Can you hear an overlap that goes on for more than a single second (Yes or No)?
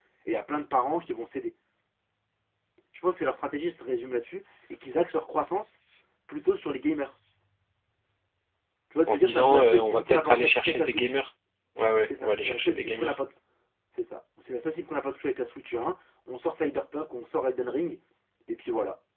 Yes